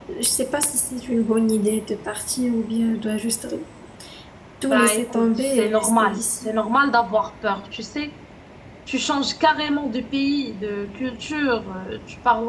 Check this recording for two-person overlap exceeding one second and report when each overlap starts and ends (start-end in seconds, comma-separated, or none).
4.7-6.5